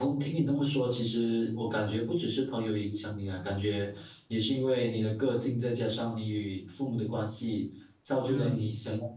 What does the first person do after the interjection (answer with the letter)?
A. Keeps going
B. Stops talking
A